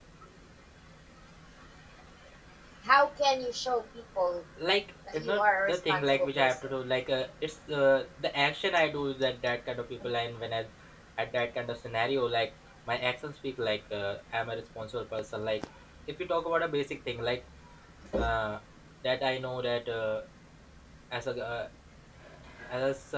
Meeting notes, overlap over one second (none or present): present